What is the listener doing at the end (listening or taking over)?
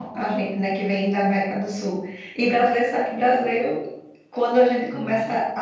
listening